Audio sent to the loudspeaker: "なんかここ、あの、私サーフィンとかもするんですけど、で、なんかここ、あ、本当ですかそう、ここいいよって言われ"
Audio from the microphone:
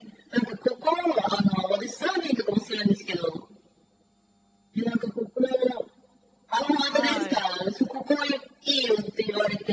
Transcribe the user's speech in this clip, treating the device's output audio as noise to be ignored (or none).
はい、